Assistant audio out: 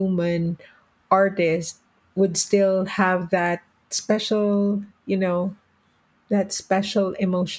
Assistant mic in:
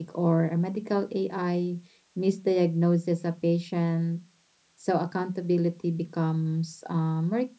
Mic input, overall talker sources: user only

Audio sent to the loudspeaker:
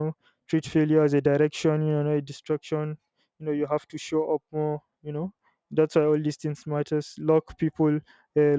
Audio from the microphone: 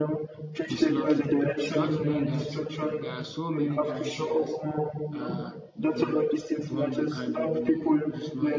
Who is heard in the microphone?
both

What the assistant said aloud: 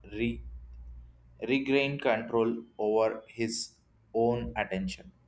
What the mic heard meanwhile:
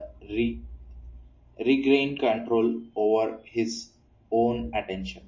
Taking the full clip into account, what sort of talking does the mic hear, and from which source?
echo only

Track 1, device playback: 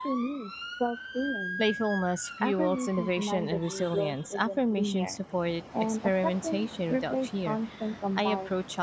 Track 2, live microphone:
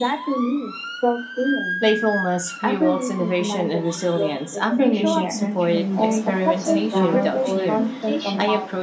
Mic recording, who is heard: both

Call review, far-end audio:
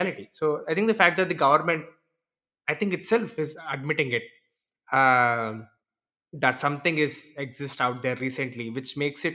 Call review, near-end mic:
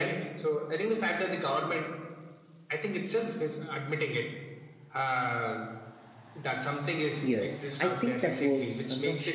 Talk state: both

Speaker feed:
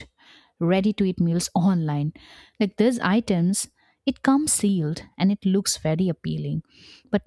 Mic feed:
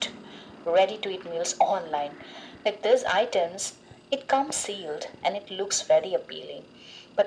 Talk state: echo only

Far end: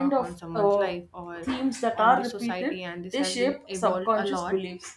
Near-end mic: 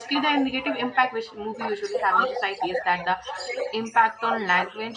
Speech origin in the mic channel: both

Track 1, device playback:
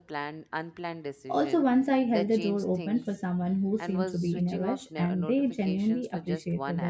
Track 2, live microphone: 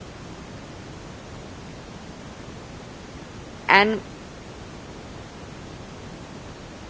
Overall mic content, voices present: user only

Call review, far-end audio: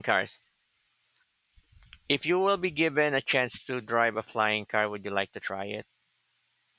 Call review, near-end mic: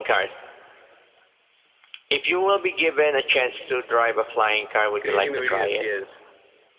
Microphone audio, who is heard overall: both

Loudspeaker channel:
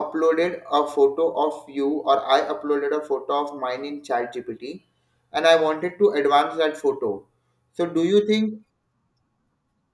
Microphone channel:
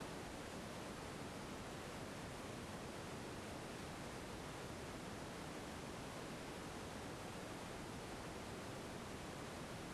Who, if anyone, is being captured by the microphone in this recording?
neither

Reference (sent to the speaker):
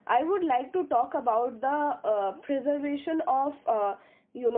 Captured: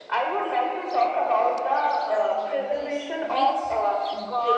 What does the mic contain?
both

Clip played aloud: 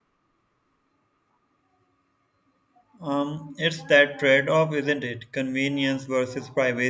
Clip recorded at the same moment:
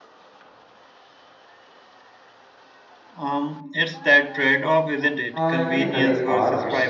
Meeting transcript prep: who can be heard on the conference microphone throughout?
both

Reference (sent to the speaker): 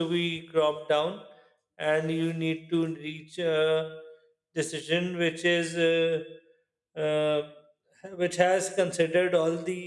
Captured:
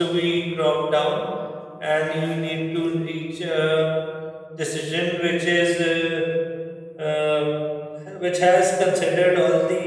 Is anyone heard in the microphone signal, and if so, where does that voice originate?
echo only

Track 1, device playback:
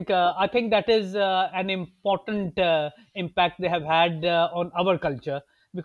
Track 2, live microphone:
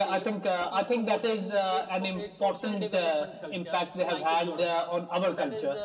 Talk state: both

